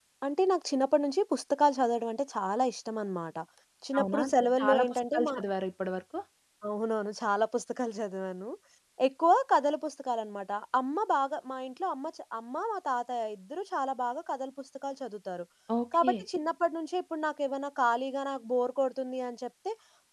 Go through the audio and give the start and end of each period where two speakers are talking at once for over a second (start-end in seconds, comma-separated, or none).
4.0-5.3